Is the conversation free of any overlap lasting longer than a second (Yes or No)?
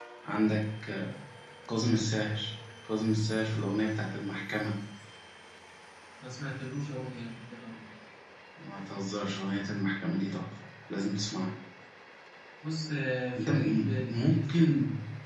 No